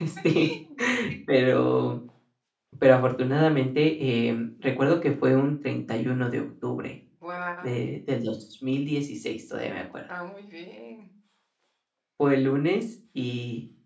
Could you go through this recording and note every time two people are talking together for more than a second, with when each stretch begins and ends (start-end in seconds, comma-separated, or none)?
none